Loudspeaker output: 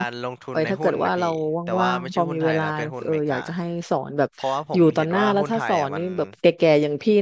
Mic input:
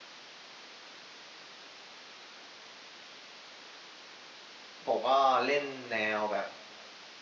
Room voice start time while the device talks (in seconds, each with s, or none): 4.8 s